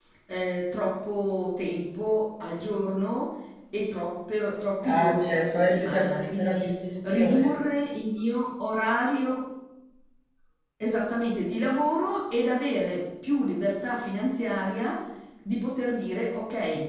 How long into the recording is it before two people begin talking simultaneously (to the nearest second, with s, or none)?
5 s